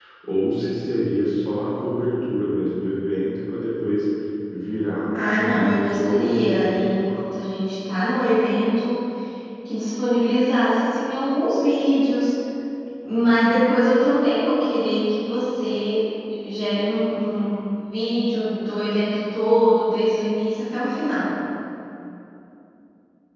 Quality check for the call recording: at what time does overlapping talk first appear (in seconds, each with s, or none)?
5.1 s